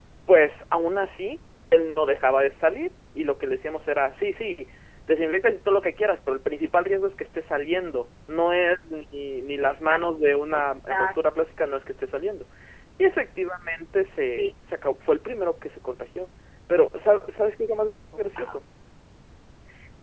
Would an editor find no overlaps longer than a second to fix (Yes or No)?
No